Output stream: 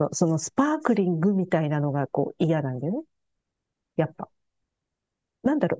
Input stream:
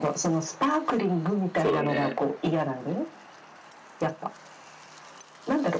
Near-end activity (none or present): present